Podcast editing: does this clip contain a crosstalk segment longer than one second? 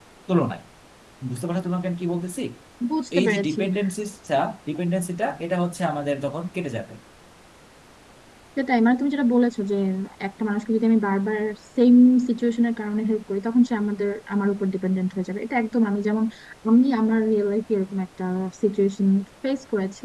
No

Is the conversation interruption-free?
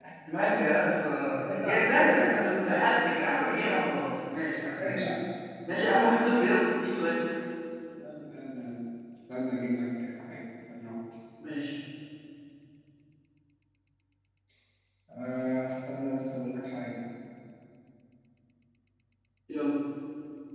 No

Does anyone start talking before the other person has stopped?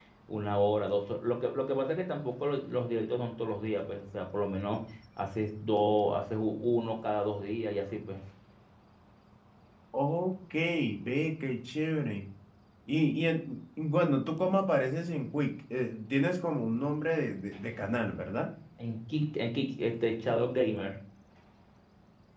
No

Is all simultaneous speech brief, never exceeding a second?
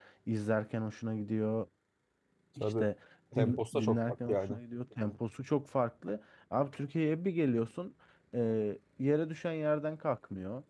No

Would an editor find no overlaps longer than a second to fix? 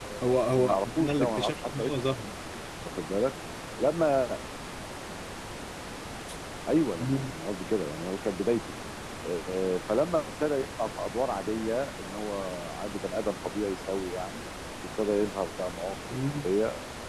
No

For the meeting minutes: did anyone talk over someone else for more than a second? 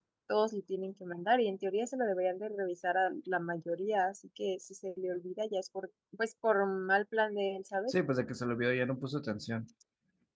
No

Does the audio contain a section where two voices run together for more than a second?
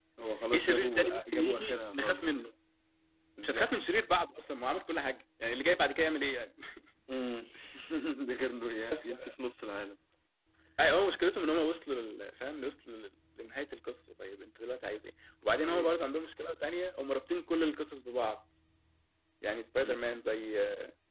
Yes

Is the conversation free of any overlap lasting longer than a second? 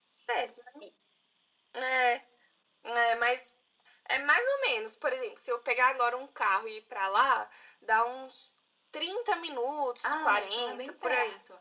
No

